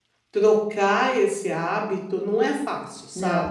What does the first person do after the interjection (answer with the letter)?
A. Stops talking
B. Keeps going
A